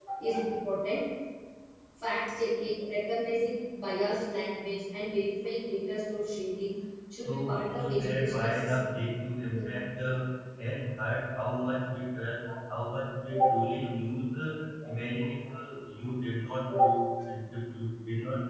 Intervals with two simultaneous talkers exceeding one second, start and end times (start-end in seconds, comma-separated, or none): 7.2-8.9